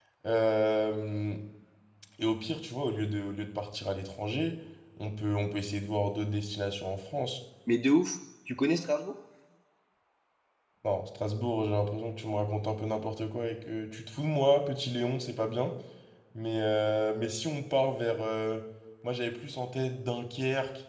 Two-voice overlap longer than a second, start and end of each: none

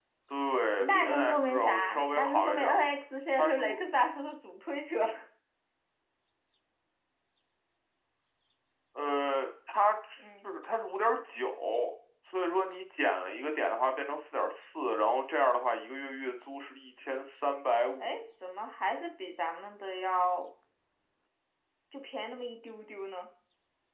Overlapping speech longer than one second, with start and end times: 0.8-2.8

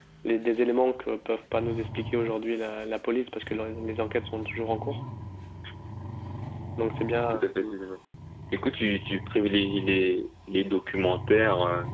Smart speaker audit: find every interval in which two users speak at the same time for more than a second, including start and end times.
none

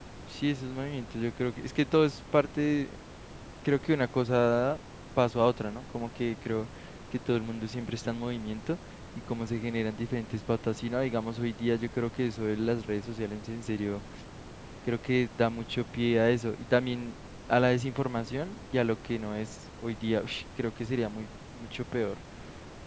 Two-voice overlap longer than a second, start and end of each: none

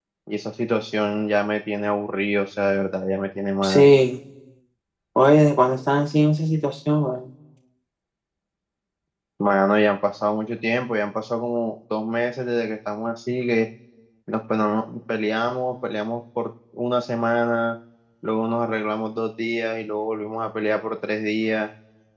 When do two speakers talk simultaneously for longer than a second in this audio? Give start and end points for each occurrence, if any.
none

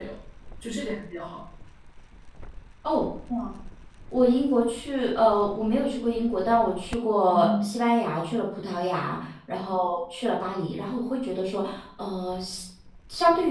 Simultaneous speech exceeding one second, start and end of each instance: none

